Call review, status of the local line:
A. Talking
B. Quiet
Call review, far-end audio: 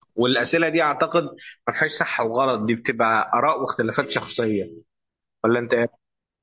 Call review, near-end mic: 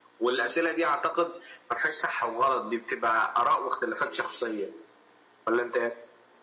B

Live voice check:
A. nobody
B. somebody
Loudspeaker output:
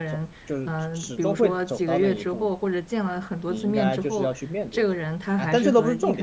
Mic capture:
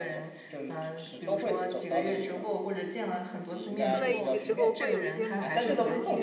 B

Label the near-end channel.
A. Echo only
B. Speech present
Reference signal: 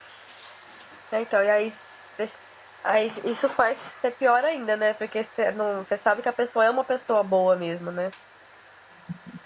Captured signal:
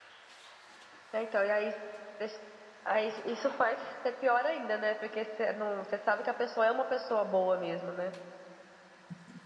A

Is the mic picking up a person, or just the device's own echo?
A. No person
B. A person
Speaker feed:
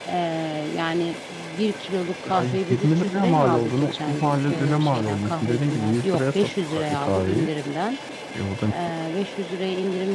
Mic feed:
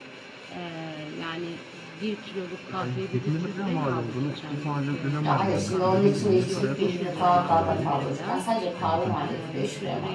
B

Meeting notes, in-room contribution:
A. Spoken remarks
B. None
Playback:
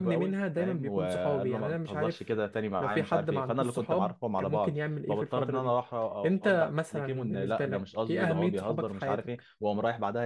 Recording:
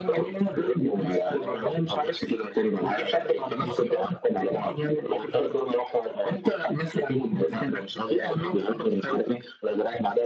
B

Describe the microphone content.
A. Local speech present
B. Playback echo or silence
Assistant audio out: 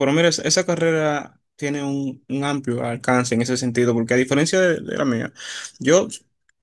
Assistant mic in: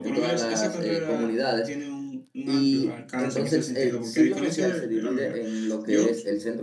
A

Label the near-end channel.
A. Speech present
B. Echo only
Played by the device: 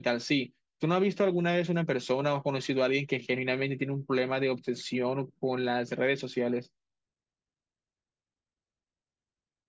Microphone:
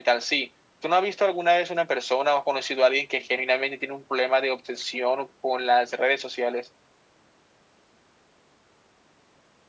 B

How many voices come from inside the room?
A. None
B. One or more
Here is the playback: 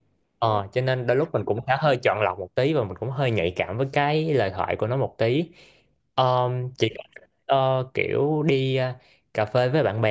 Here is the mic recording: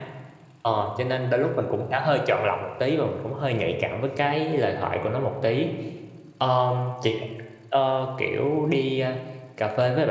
A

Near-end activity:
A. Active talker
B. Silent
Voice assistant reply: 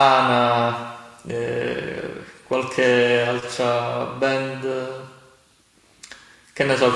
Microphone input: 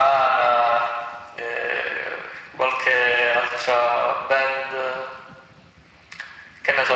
B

